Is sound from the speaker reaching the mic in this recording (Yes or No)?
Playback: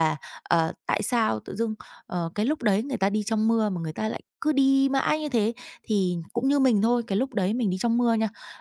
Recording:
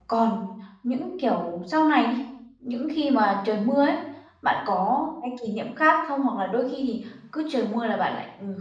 No